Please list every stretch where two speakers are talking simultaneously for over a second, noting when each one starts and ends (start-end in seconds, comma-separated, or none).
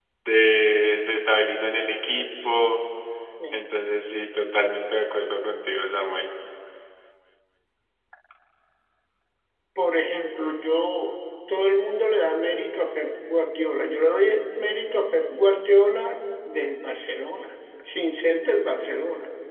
none